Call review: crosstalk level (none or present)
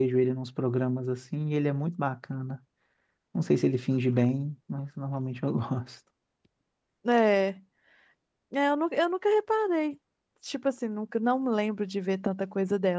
none